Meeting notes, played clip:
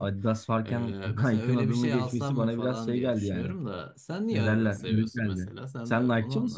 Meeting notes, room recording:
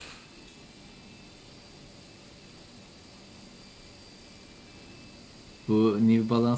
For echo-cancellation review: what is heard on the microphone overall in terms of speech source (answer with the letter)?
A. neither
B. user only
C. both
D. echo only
B